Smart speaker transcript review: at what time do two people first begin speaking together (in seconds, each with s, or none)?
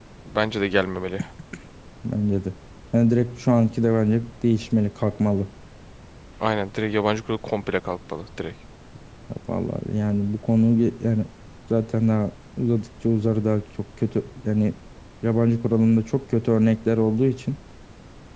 none